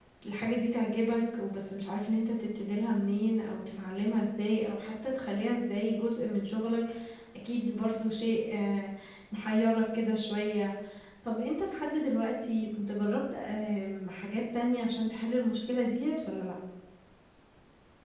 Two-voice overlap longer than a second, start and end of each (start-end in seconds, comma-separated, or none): none